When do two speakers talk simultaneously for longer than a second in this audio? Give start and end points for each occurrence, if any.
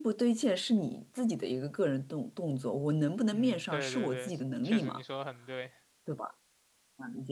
3.3-5.0

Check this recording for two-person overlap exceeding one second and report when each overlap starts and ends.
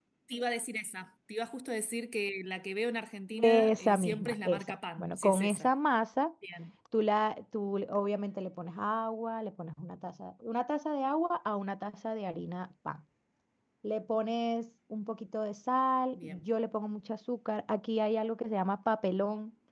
3.4-5.7

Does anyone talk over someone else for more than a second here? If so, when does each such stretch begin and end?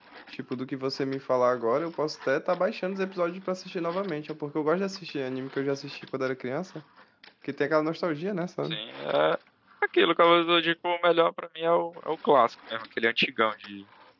none

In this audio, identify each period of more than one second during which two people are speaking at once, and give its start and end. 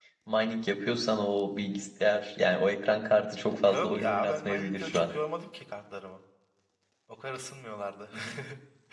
3.6-5.1

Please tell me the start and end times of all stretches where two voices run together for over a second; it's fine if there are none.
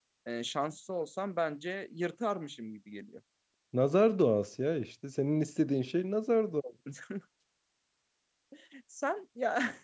none

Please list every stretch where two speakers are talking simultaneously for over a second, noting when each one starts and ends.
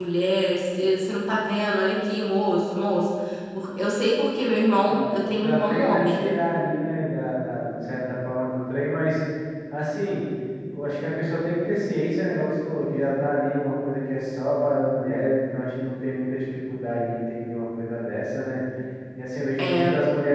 4.8-6.2

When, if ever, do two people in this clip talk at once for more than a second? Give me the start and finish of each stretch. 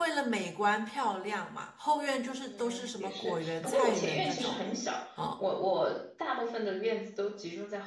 2.4-4.6

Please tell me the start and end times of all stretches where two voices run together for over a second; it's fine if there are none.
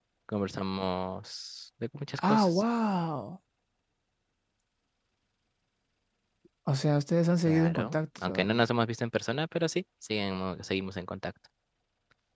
7.5-8.7

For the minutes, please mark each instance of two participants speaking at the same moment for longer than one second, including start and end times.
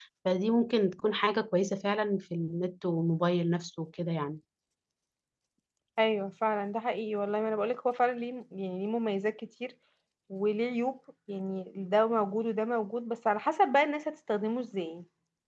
none

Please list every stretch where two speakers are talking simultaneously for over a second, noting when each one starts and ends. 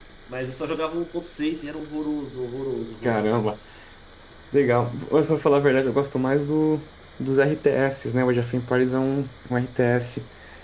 none

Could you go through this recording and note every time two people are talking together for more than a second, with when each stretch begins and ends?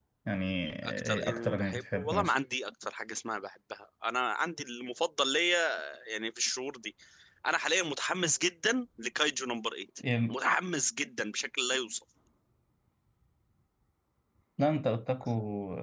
1.1-2.3

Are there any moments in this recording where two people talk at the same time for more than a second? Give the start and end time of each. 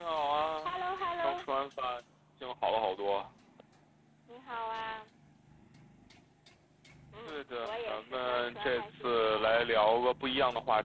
7.3-9.9

